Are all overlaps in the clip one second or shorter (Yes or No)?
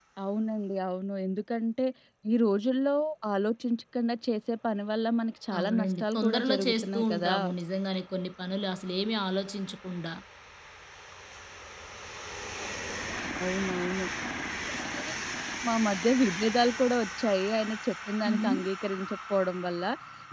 No